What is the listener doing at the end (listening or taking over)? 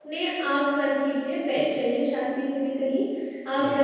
listening